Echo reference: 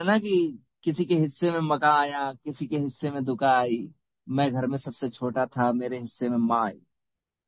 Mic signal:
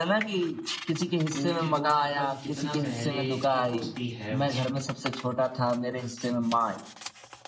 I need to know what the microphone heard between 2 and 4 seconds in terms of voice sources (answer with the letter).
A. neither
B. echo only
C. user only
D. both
D